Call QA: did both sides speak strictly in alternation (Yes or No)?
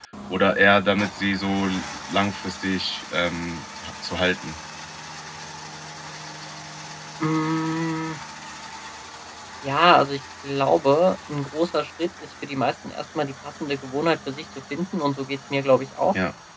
Yes